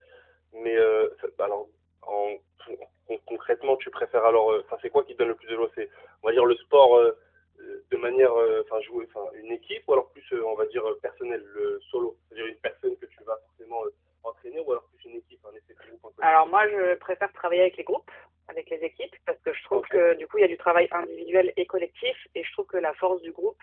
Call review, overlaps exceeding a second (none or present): none